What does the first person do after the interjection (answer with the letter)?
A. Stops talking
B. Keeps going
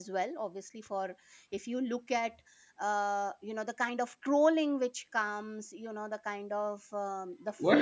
A